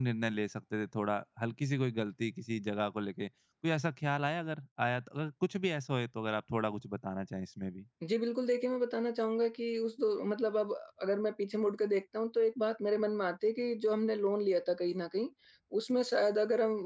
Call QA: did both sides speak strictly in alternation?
Yes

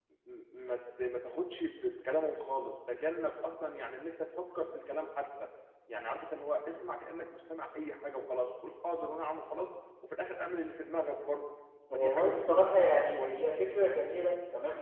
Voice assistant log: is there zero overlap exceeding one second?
No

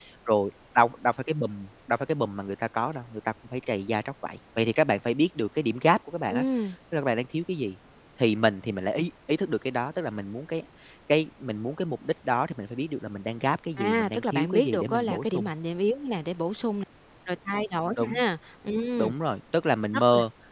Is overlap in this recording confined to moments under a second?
No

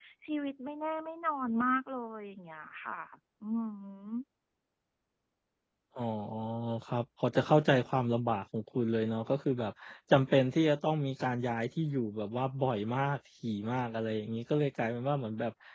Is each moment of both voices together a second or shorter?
Yes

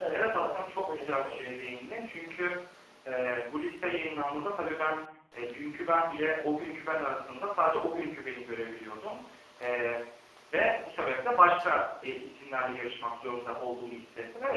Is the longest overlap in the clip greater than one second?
Yes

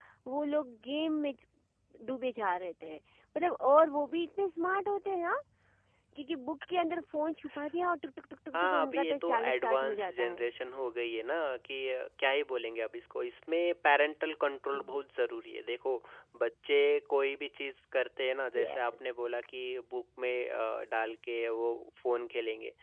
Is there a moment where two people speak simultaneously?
Yes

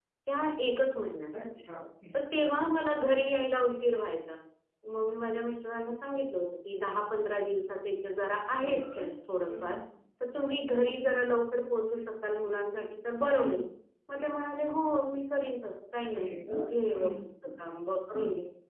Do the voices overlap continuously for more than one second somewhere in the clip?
No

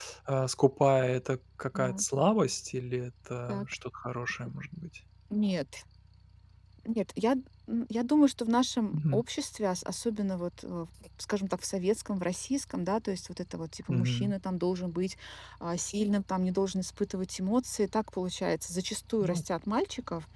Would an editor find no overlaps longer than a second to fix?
Yes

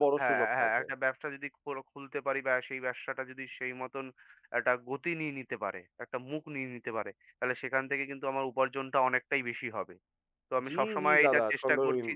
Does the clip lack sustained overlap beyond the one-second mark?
No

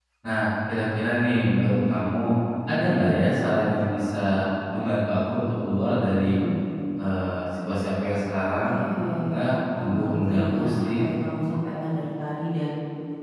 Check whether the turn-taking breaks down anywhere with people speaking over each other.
Yes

